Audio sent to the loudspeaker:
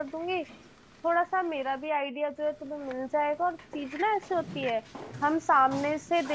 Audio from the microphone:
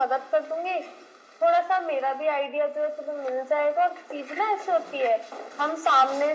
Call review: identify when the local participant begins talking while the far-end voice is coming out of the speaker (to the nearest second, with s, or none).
none